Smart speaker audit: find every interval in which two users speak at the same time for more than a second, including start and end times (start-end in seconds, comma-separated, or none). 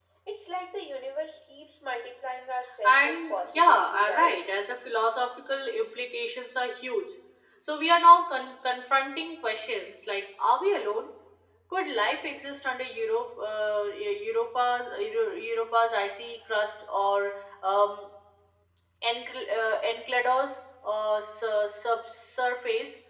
2.8-4.4